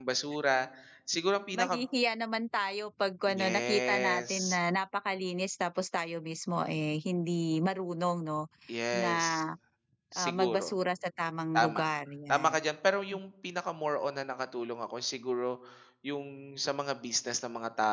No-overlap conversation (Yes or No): No